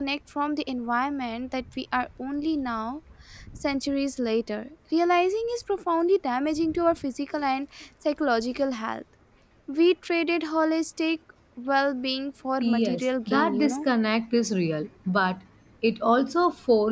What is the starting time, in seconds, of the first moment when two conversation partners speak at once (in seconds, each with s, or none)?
12.6 s